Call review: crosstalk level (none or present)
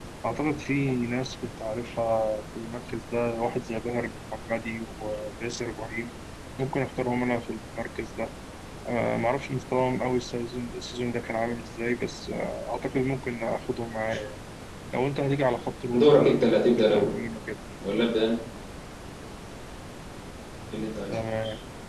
present